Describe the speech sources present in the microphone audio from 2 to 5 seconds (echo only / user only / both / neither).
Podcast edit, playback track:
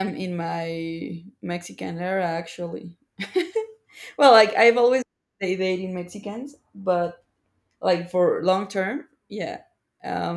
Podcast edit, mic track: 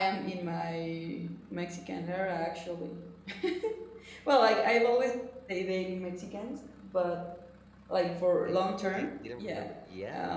echo only